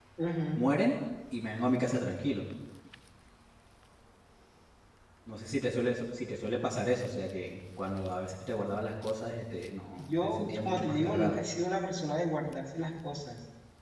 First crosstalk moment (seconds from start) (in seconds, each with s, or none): 9.9 s